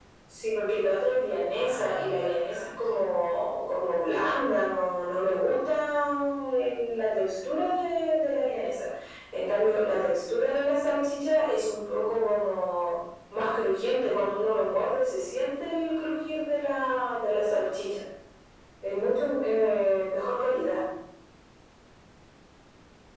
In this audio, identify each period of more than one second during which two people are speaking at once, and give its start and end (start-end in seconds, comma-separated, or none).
1.5-3.0